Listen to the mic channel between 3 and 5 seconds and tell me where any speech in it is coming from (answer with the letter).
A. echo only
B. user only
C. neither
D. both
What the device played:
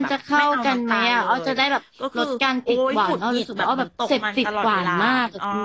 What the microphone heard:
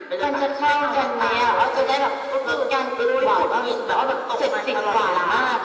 A